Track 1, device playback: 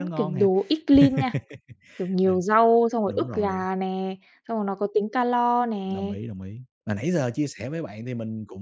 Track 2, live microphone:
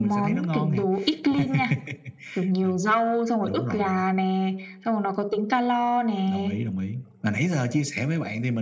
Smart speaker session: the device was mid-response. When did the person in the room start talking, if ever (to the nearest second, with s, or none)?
none